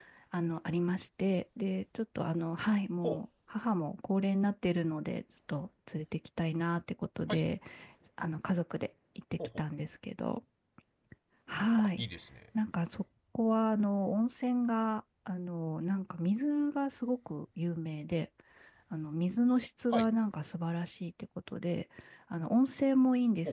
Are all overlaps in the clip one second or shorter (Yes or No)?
Yes